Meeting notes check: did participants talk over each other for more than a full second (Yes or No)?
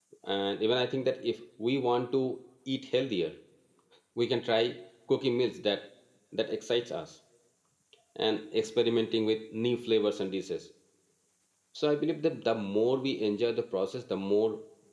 No